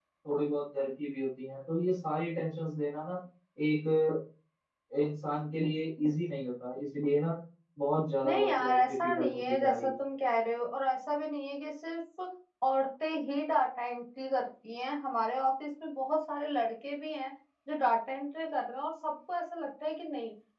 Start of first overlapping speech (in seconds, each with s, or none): 8.2 s